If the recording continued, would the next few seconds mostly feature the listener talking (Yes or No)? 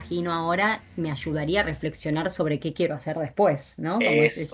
No